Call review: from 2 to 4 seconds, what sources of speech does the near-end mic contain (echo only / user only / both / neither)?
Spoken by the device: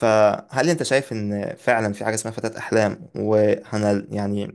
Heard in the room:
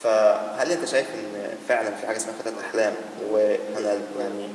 both